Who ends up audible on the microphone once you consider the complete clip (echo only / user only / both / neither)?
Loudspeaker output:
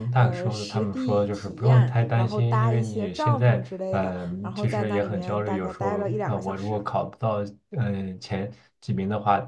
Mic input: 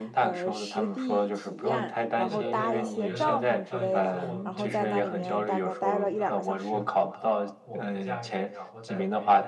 both